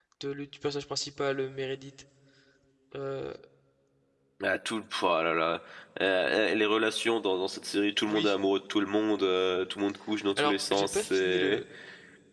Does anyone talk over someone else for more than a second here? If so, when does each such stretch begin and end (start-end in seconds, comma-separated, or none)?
10.4-11.6